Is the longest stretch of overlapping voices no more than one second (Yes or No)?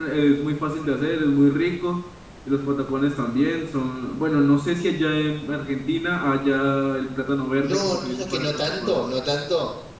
No